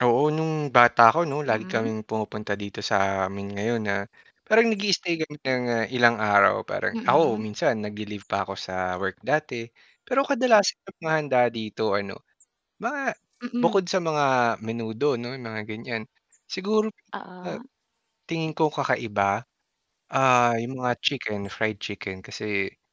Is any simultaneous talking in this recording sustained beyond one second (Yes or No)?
No